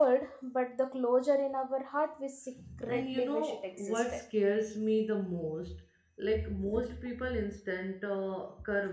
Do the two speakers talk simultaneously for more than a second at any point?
Yes, from 2.9 s

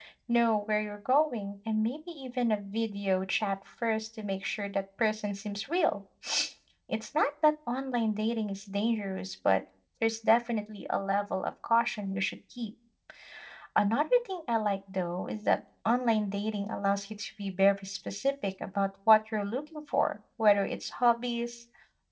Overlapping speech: No

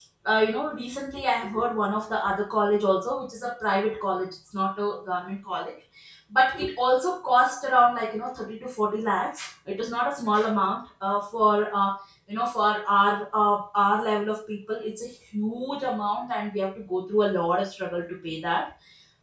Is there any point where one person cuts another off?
No

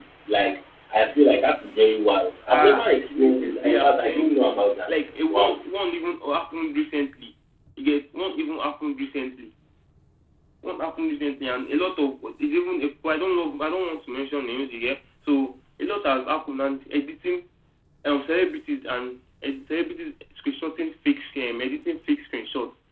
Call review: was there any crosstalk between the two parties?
Yes, from 2.5 s

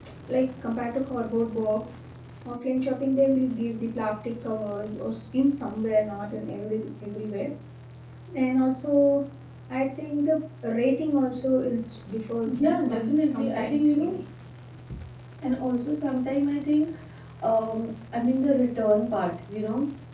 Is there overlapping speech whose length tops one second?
Yes, from 12.4 s

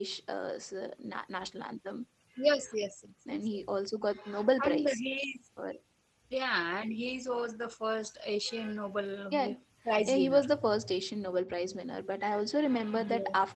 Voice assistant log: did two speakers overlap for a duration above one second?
No

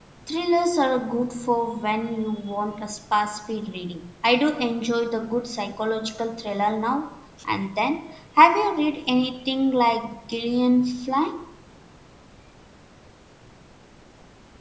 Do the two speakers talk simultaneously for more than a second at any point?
No

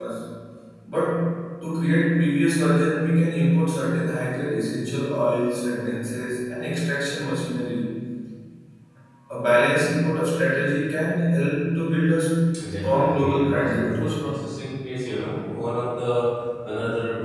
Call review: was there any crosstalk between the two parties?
Yes, from 12.8 s

